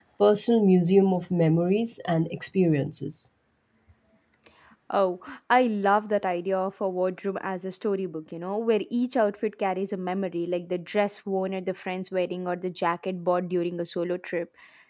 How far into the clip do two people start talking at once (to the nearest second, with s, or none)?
none